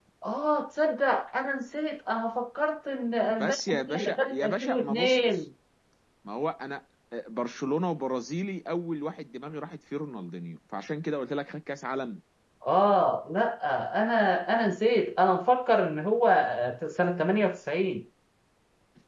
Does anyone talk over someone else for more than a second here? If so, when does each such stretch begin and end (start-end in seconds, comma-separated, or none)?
3.3-5.4